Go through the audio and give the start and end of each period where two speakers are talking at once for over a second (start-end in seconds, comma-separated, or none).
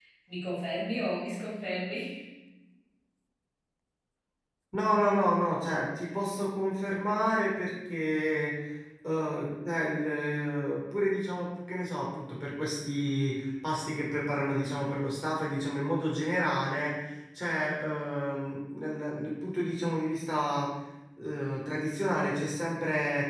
none